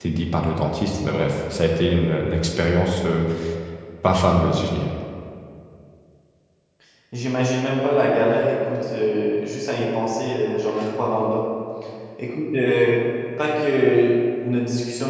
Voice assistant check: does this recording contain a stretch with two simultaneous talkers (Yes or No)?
No